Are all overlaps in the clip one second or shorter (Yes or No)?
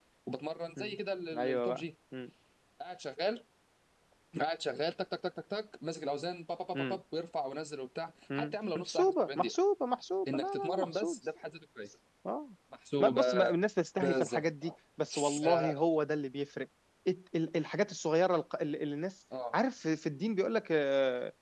No